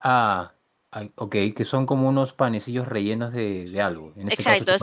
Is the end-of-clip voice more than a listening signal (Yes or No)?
Yes